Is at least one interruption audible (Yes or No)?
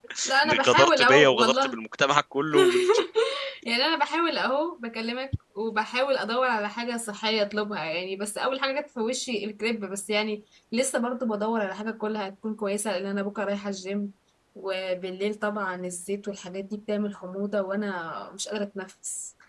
Yes